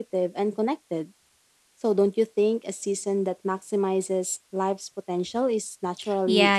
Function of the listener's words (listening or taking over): taking over